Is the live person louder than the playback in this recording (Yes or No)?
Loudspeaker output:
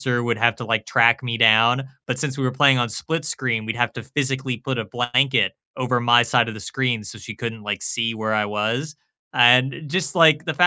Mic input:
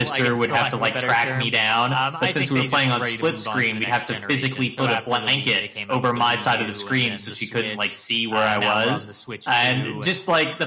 No